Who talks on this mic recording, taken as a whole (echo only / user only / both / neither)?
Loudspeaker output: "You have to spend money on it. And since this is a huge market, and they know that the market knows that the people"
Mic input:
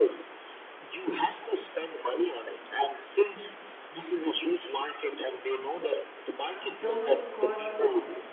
both